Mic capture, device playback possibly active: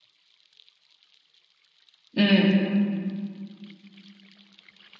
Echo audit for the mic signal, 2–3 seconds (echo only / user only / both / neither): user only